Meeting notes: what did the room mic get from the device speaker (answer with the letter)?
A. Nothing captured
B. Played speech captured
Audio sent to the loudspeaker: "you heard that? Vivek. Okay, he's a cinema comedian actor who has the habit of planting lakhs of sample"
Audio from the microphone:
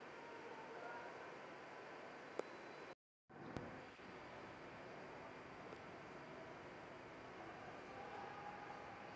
A